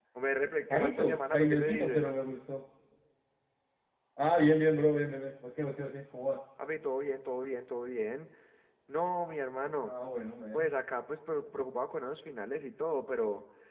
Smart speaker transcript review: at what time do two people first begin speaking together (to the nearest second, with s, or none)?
1 s